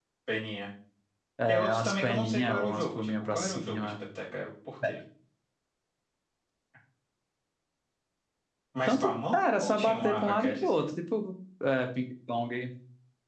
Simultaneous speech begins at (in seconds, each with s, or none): 1.5 s